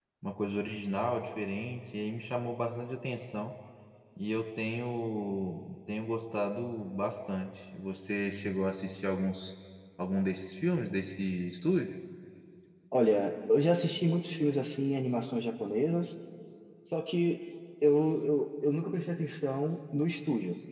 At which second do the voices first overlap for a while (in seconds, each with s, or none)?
none